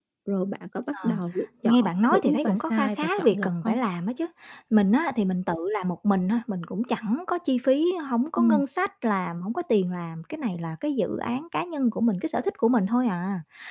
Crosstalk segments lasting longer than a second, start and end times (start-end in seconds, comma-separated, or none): 1.6-3.8